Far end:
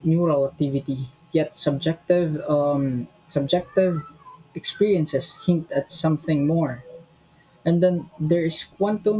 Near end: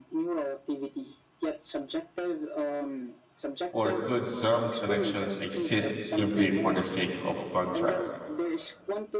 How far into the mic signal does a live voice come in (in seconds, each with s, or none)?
3.7 s